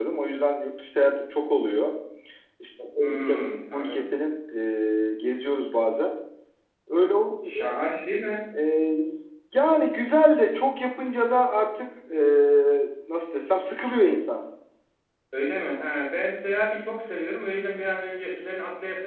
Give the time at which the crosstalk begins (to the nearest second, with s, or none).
3 s